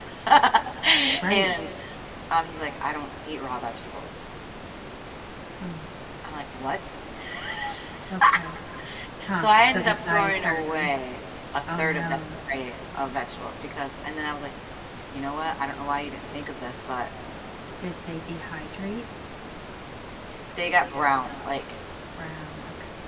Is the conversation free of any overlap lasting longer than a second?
No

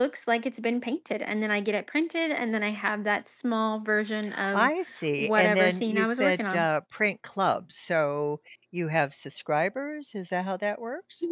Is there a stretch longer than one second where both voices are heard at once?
Yes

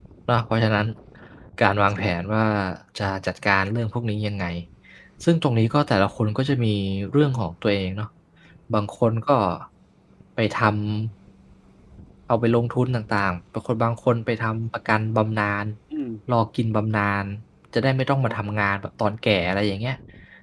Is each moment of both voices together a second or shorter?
Yes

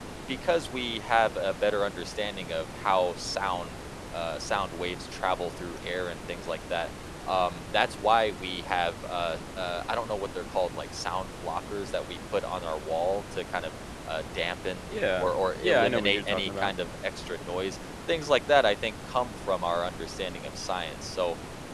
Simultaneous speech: Yes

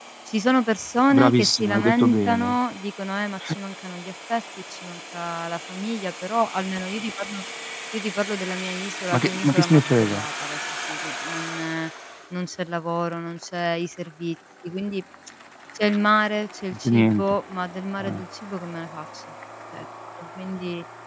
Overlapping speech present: Yes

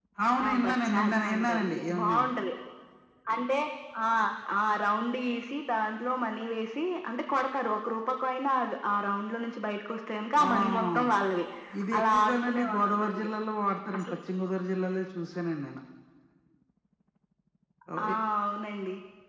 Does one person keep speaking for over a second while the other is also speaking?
Yes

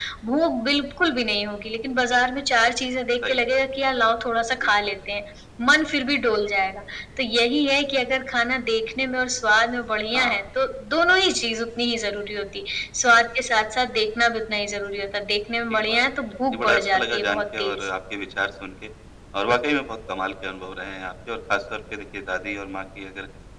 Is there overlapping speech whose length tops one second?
Yes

